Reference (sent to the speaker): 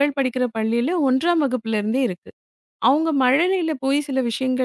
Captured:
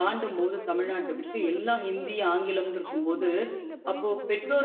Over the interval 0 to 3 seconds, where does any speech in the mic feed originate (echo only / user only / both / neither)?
both